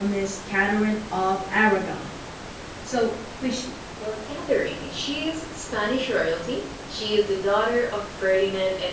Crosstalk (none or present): none